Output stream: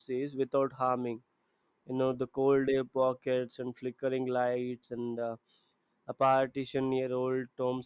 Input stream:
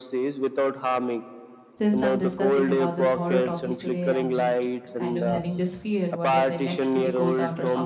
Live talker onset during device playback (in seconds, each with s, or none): 1.8 s